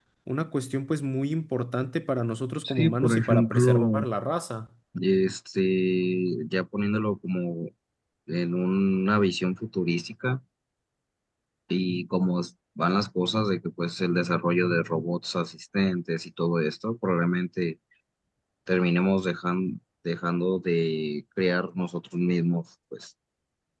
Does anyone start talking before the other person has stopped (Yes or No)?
Yes